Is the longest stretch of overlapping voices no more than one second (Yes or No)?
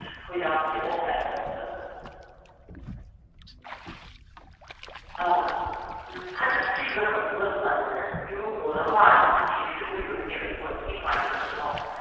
Yes